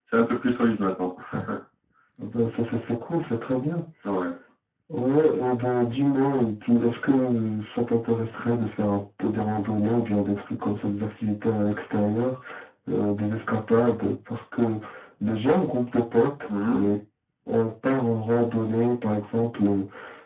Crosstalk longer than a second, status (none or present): none